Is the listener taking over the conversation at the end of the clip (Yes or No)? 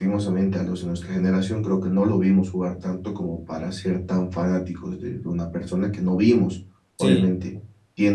No